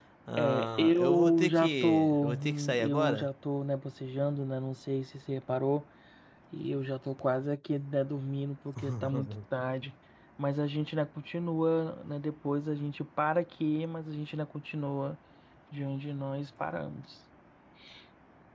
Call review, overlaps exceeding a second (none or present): present